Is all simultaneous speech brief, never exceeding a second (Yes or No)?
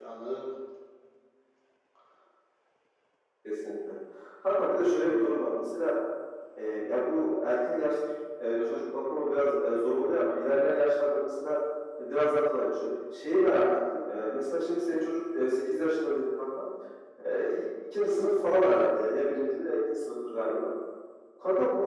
Yes